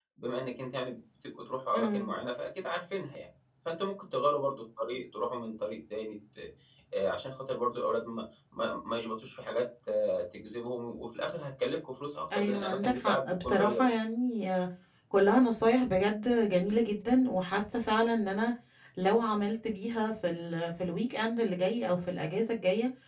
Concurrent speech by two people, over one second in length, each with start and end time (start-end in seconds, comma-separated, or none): 12.4-14.0